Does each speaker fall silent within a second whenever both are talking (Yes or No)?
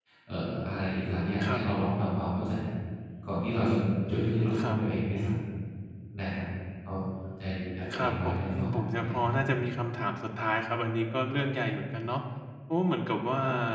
No